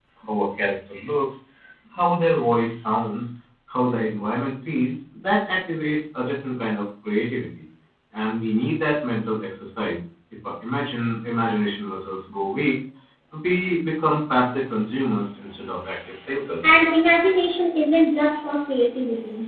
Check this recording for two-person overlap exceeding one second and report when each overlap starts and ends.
none

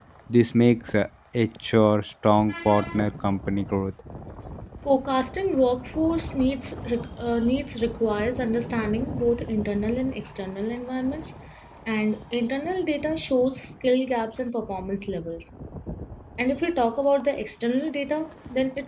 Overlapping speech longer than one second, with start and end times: none

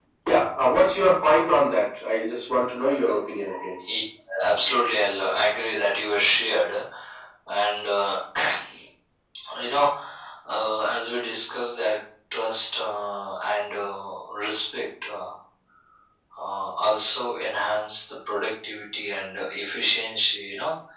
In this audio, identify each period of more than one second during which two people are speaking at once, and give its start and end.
none

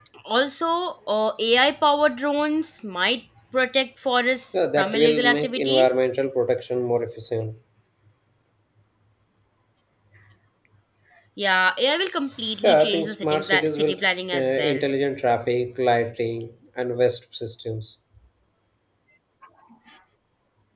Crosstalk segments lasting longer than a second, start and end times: 4.5-6.0, 12.6-13.9

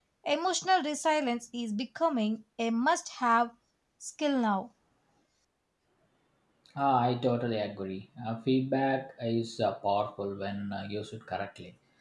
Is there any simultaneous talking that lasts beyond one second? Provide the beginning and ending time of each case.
none

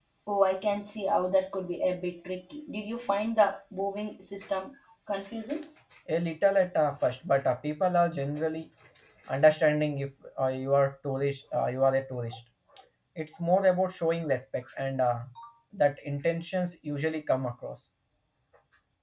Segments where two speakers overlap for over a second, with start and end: none

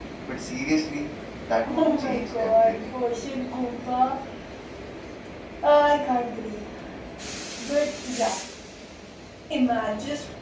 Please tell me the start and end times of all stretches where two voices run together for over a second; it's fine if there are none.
1.6-3.0

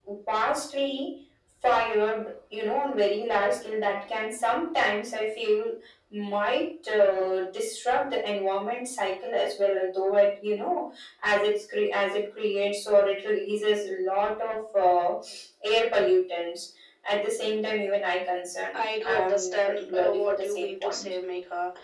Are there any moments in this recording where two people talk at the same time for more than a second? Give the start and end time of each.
18.7-21.1

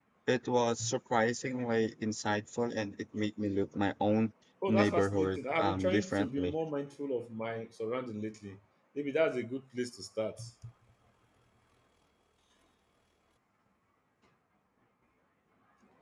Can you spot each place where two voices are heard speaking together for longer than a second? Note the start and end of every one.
4.7-6.5

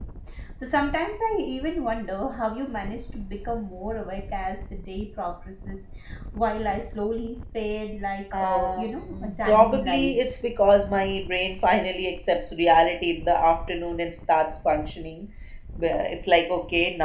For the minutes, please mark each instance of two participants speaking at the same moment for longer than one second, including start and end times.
8.3-10.4

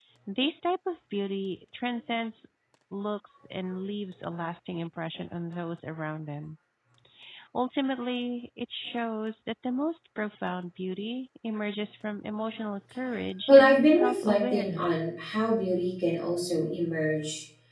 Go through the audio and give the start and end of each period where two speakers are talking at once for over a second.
13.5-15.0

